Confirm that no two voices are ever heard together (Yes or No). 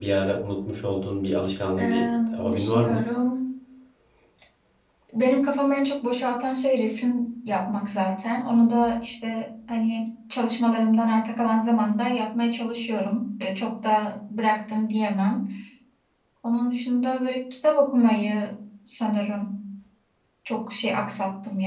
No